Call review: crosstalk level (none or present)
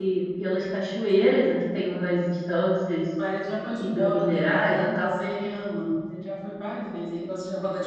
present